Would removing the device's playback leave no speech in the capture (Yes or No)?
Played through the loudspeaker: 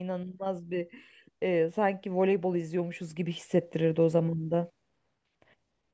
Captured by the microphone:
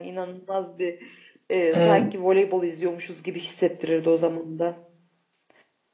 No